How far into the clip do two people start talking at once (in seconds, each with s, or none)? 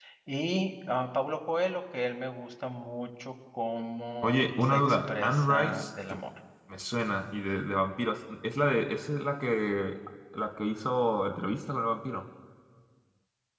4.2 s